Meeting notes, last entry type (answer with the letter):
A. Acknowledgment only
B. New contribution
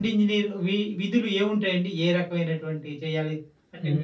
B